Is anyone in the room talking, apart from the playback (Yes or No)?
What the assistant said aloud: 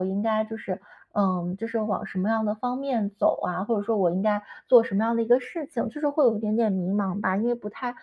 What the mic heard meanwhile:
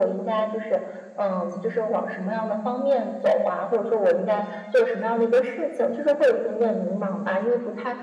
No